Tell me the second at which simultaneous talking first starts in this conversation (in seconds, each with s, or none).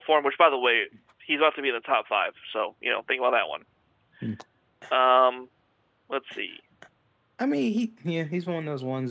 none